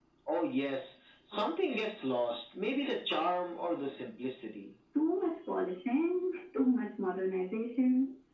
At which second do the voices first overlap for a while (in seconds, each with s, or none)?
none